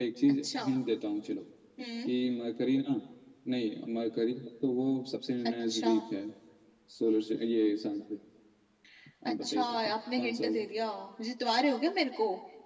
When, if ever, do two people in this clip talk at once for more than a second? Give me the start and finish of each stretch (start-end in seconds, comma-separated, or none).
9.3-10.6